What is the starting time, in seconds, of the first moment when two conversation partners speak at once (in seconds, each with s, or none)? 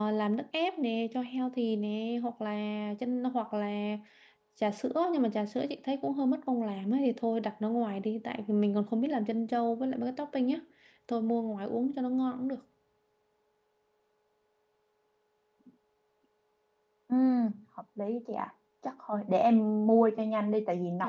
none